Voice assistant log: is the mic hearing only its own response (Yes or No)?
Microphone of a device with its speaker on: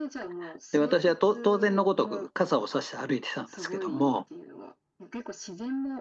No